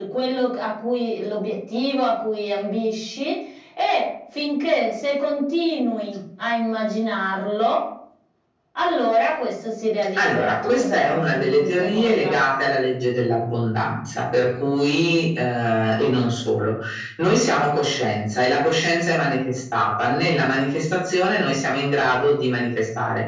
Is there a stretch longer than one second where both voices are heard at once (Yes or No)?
Yes